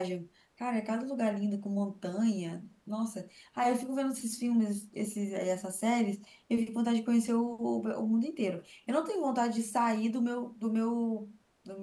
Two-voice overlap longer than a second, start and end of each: none

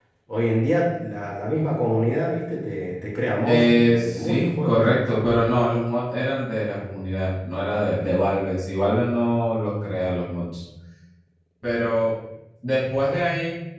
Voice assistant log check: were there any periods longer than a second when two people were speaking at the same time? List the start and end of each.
3.4-4.8

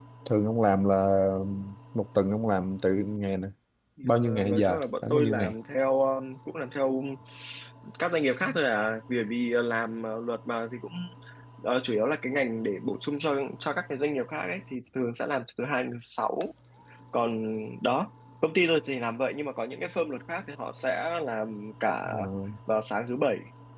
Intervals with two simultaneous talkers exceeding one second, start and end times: 4.0-5.5

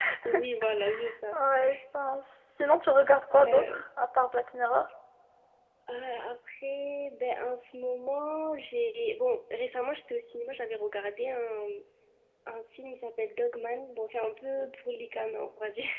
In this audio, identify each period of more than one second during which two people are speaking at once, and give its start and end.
none

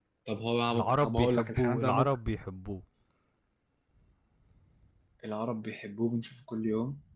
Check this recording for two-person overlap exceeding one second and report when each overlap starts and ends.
0.7-2.2

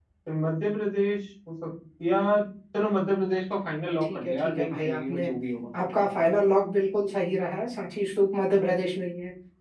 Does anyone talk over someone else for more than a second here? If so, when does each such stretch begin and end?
4.0-5.3

